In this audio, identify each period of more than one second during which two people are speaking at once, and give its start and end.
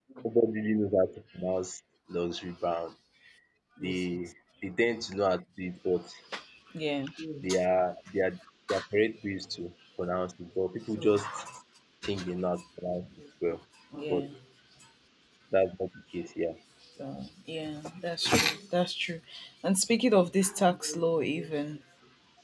none

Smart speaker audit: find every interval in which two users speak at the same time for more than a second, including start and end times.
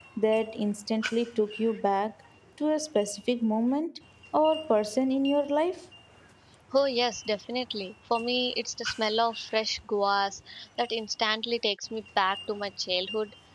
none

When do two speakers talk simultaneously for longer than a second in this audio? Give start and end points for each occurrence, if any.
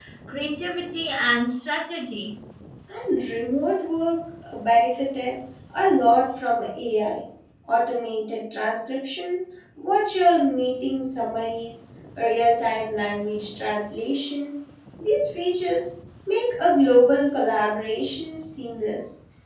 none

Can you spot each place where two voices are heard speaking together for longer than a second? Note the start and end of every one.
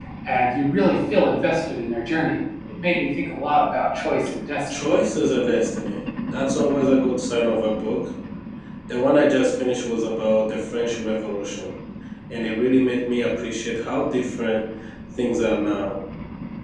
none

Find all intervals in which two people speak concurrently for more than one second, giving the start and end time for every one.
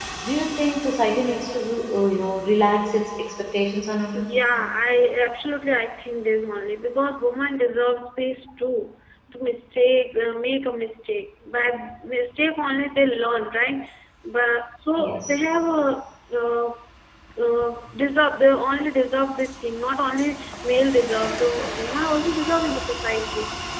none

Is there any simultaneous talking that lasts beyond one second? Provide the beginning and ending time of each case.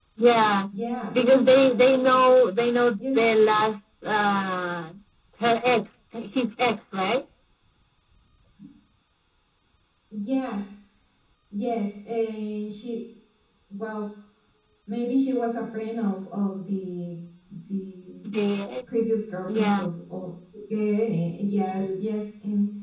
1.1-2.4

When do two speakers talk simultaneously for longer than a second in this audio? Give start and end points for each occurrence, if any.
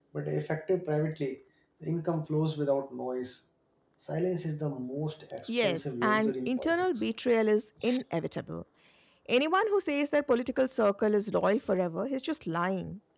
5.5-7.0

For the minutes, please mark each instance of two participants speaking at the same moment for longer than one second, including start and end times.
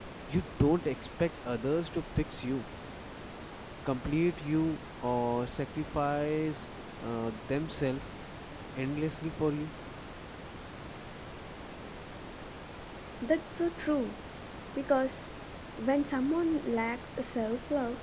none

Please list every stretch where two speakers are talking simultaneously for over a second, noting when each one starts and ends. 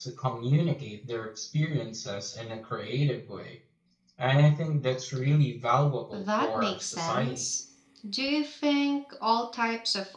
6.1-7.4

